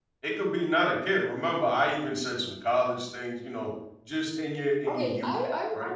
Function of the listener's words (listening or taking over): taking over